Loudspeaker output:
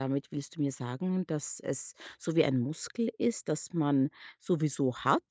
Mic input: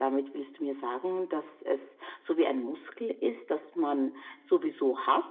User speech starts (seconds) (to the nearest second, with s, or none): none